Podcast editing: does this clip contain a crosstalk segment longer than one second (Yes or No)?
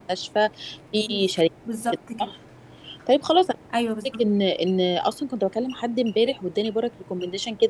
No